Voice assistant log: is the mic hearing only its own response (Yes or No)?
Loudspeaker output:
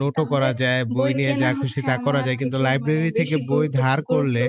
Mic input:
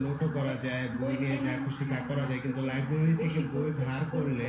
Yes